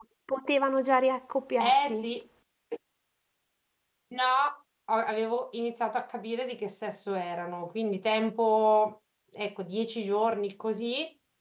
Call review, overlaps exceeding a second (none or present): none